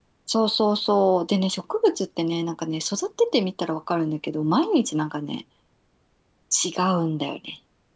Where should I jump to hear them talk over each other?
none

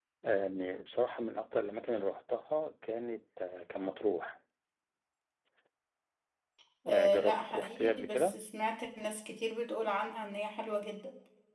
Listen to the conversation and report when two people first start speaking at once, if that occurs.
7 s

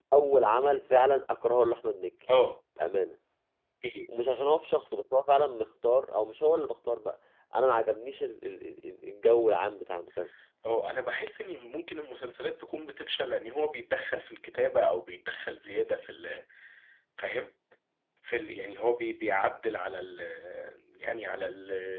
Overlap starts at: none

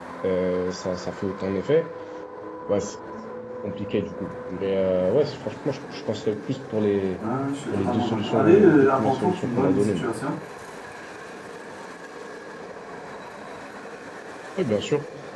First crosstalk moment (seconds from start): 8 s

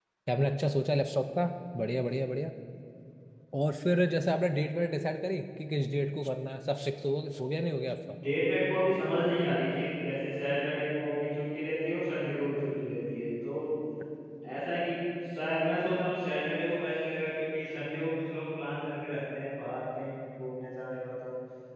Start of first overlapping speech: none

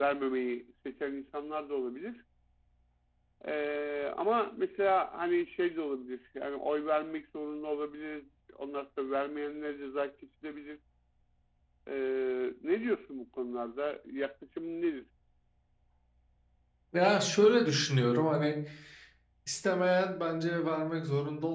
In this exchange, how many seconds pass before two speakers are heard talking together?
none

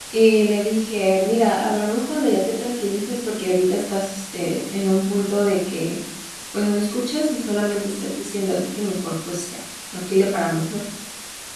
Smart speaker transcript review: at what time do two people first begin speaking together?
none

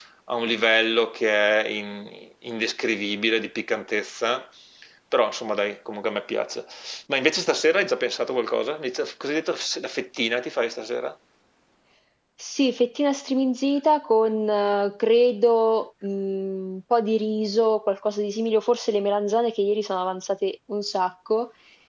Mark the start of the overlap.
none

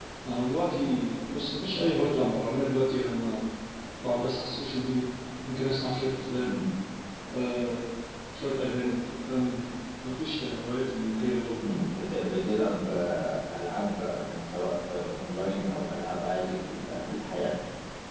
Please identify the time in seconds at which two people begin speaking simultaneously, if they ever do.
none

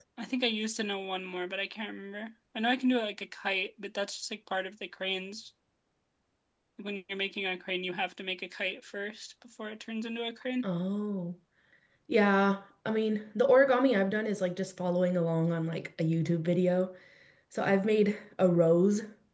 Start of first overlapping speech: none

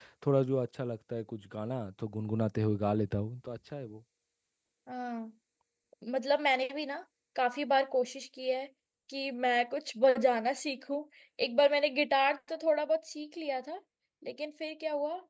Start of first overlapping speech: none

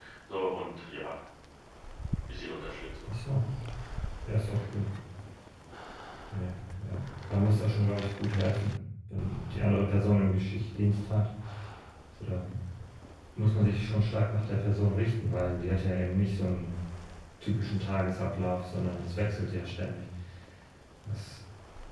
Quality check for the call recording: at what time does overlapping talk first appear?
none

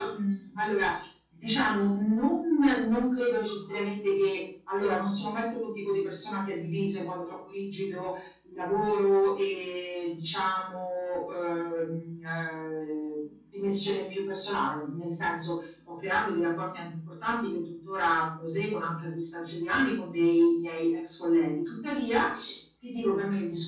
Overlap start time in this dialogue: none

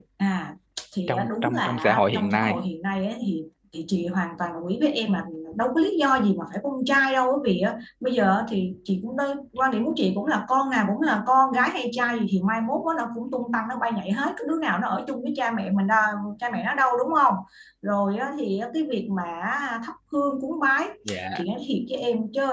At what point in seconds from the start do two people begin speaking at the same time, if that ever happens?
1 s

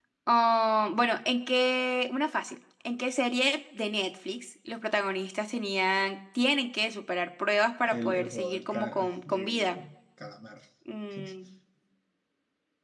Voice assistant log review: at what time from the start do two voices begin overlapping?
8 s

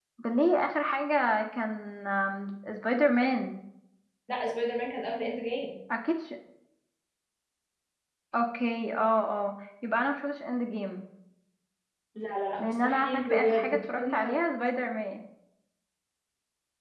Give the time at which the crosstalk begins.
13 s

